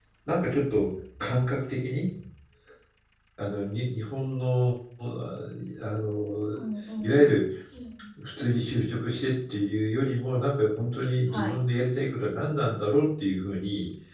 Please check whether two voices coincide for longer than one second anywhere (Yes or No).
No